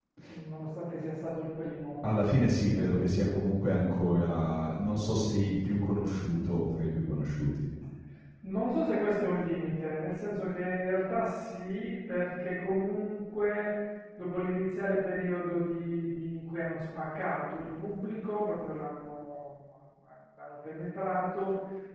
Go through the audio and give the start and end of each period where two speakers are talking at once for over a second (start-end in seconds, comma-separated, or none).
none